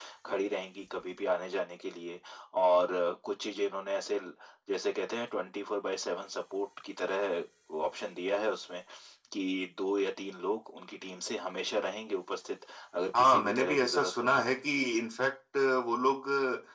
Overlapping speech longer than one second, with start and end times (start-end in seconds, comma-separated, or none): 13.2-14.4